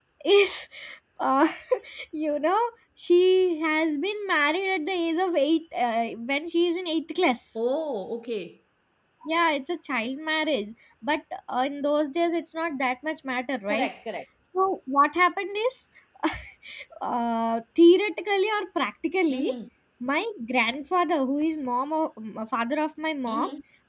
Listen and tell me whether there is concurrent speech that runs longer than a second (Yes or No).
No